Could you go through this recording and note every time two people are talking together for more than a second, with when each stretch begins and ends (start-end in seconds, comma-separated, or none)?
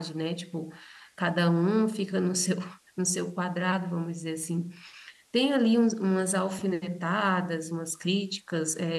none